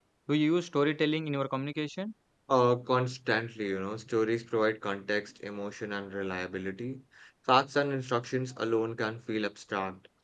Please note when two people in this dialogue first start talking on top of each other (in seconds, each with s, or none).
none